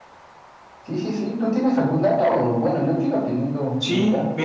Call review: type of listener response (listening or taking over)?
taking over